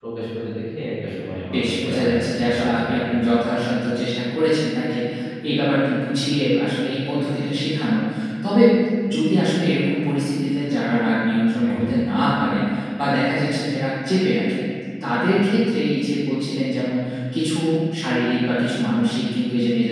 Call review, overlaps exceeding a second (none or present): present